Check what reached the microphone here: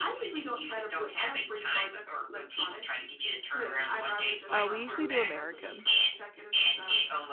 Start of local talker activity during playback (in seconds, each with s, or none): 4.5 s